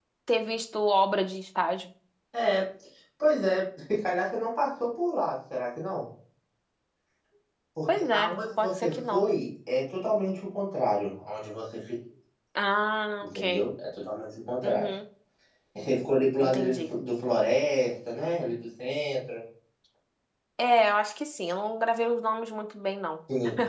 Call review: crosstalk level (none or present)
present